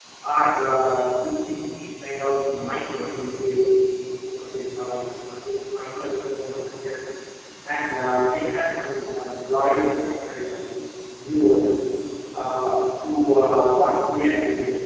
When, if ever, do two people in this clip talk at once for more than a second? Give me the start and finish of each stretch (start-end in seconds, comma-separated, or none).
none